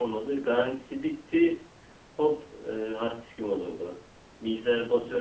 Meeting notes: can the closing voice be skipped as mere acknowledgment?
Yes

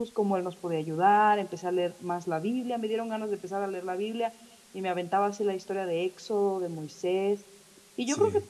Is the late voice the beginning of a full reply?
No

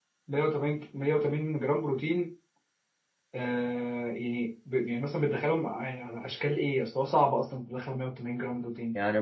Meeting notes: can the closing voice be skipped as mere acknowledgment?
No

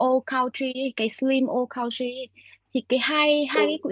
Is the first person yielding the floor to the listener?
No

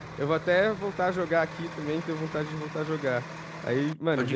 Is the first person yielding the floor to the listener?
No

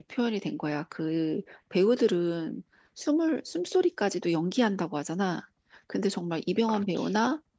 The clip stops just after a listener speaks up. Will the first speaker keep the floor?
Yes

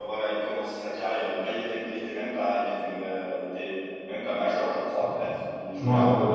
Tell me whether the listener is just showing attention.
No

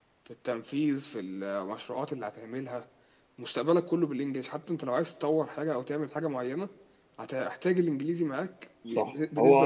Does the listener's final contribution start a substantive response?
Yes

